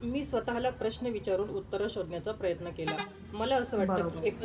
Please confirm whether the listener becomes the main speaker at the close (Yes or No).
No